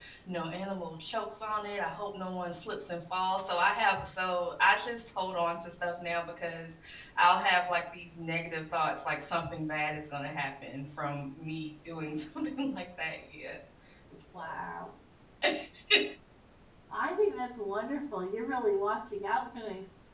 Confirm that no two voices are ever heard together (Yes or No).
Yes